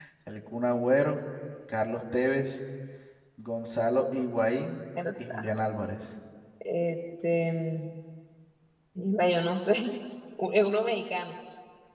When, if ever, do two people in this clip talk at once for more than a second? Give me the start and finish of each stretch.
none

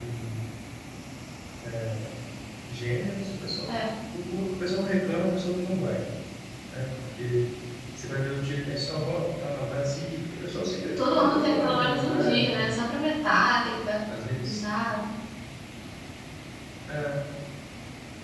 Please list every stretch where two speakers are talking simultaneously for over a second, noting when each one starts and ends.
11.2-12.7

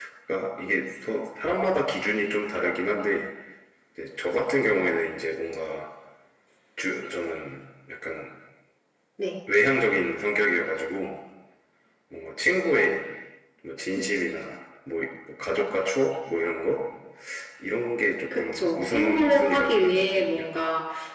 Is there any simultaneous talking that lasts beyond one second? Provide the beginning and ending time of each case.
18.3-20.4

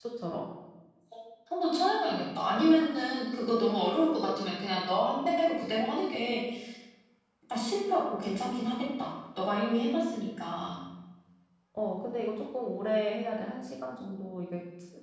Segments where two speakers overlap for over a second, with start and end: none

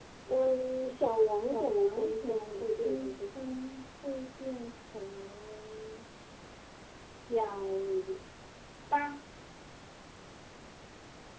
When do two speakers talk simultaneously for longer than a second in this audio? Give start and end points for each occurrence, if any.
1.5-3.5

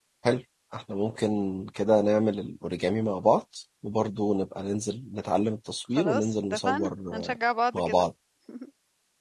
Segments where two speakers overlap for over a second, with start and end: 6.0-7.4

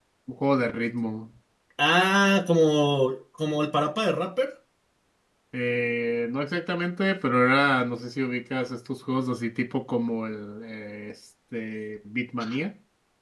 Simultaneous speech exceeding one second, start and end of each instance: none

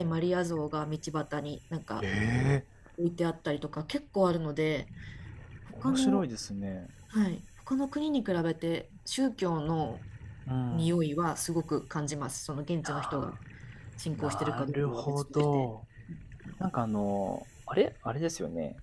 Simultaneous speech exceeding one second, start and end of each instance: 14.1-15.7

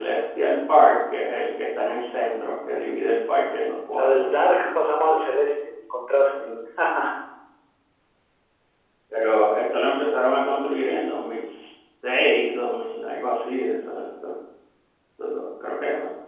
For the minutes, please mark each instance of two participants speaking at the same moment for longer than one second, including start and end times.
none

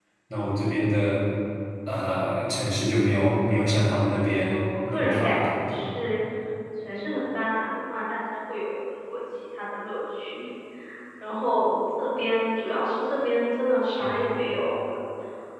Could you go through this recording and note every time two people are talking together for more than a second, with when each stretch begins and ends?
4.4-6.0

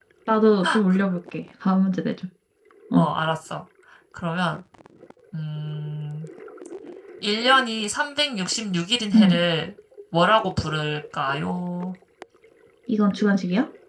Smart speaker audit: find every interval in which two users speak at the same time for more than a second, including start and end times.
none

